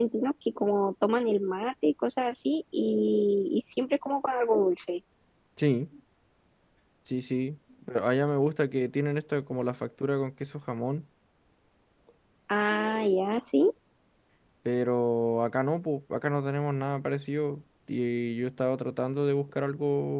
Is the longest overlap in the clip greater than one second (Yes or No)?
No